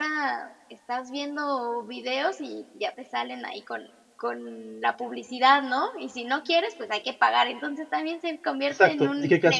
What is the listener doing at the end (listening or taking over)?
taking over